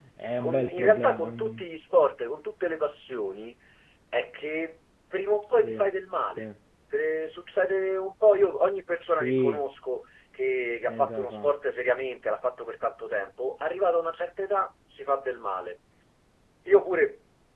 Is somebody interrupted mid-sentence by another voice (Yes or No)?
Yes